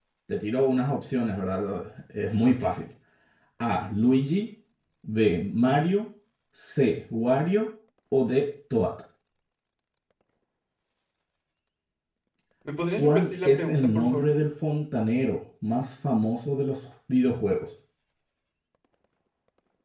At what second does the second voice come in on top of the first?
13.0 s

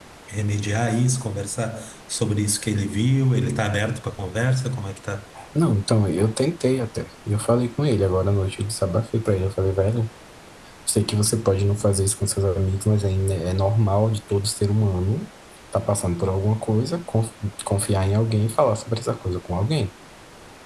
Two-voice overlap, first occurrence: none

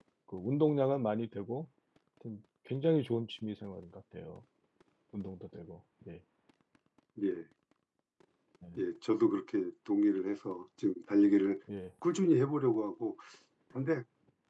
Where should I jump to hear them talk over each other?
none

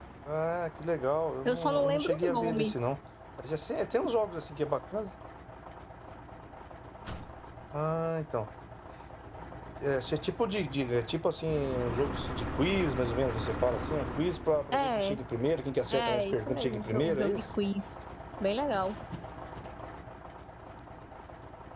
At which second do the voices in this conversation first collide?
1.4 s

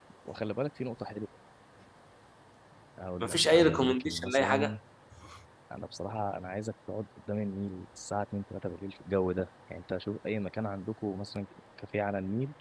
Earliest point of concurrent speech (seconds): 3.2 s

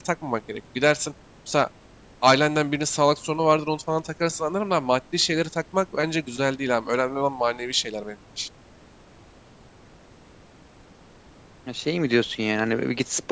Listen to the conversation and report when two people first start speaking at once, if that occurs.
none

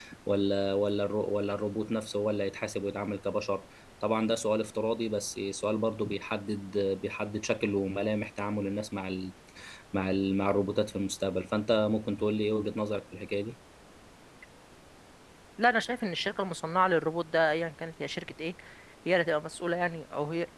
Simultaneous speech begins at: none

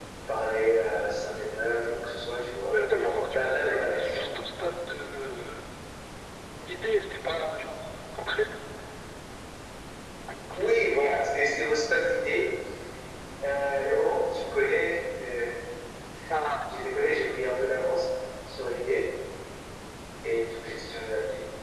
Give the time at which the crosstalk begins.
2.3 s

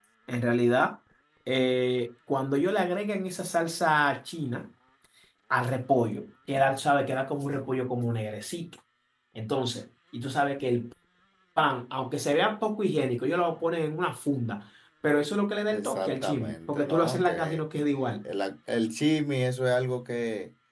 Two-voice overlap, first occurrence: 15.7 s

